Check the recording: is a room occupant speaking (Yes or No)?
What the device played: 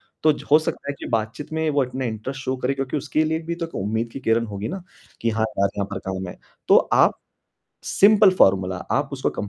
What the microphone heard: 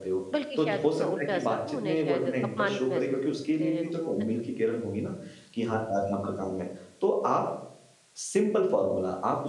Yes